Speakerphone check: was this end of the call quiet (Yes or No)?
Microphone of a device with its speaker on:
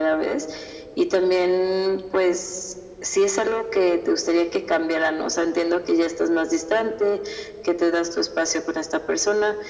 Yes